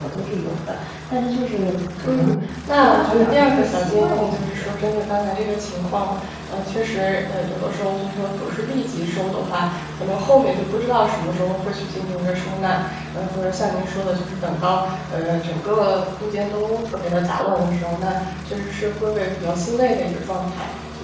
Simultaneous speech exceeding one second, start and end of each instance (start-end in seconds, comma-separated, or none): 2.8-4.8